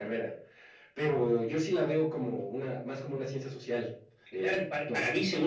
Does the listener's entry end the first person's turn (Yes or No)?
Yes